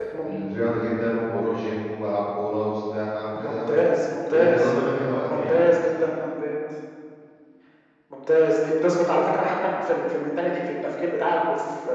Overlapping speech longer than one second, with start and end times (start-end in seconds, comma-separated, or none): none